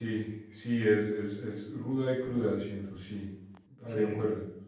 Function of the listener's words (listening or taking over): listening